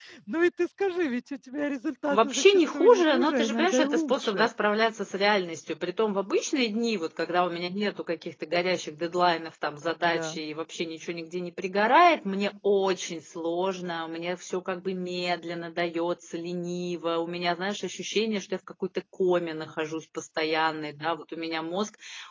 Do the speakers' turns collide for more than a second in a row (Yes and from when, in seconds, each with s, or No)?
Yes, from 2.1 s